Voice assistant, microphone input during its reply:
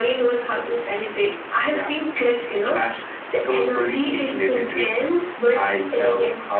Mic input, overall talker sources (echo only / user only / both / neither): echo only